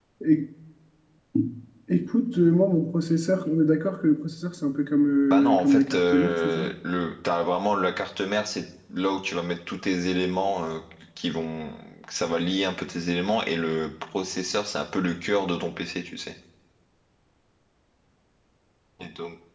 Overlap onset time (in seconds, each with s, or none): 5.3 s